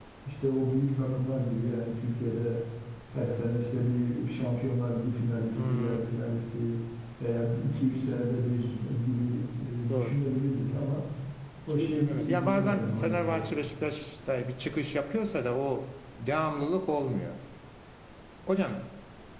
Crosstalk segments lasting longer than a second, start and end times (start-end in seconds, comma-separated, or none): 11.8-13.4